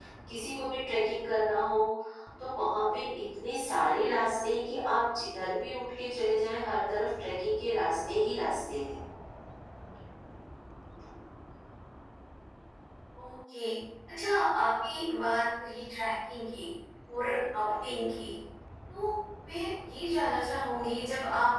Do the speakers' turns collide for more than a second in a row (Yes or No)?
No